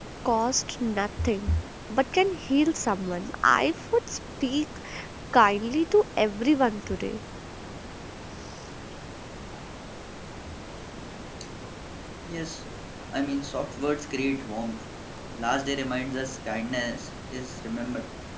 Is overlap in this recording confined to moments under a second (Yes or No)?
Yes